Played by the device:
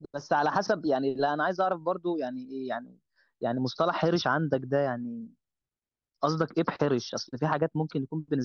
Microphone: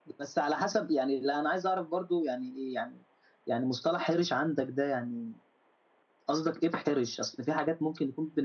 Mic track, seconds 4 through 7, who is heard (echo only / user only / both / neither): echo only